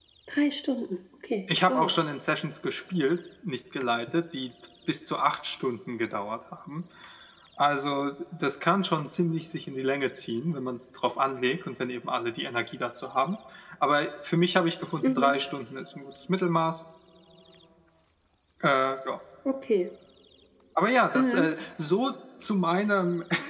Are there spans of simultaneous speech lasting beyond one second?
No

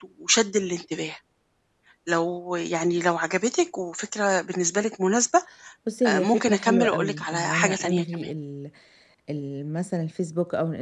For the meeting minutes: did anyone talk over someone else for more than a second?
Yes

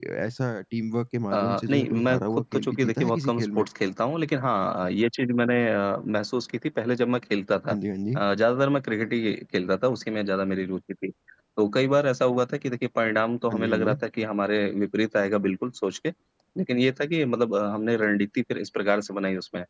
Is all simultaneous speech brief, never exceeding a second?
No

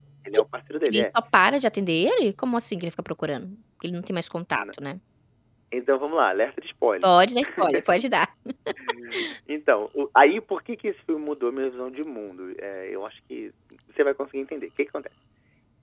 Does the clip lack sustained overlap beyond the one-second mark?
Yes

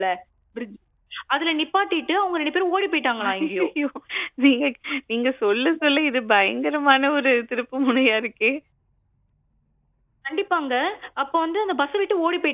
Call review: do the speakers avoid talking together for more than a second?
Yes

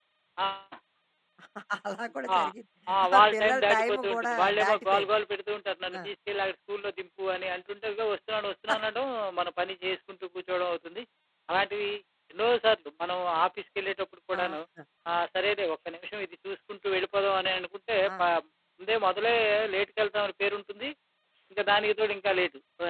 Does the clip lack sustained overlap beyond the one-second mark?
No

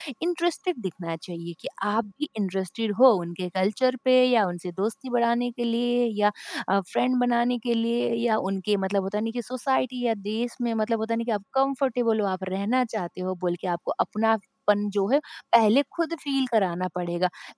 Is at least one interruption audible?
No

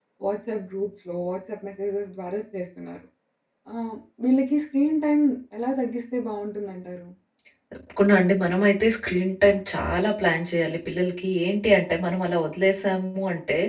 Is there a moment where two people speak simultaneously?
No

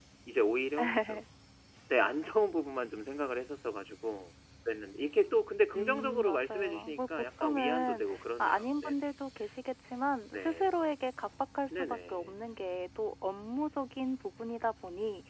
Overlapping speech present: Yes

